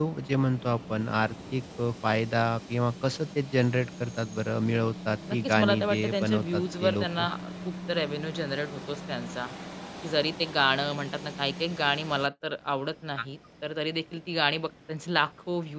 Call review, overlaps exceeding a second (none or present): present